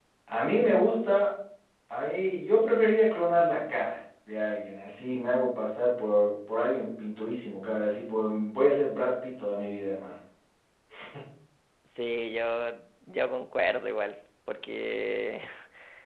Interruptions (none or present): none